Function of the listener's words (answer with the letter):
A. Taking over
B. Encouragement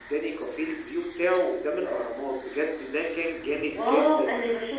A